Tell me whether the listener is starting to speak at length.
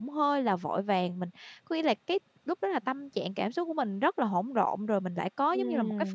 Yes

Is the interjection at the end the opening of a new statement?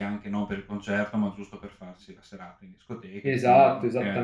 Yes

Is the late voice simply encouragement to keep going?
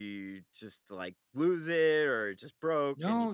No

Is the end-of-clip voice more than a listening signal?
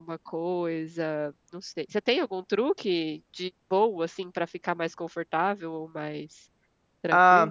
Yes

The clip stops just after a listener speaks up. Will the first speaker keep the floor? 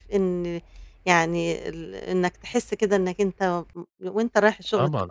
No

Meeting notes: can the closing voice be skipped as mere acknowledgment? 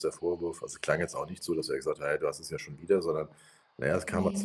Yes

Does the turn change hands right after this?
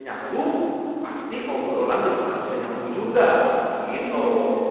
Yes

